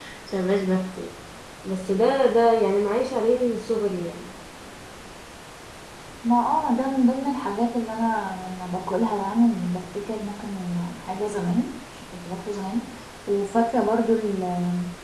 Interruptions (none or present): none